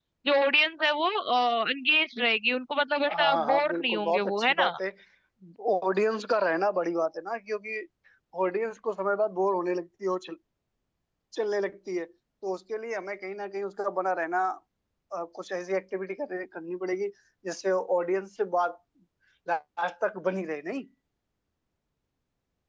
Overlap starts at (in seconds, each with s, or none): 3.1 s